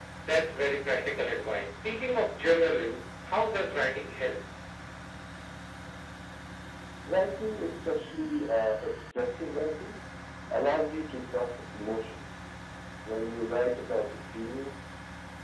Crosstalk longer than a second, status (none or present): none